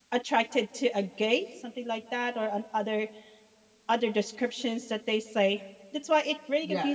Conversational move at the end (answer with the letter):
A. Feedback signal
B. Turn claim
B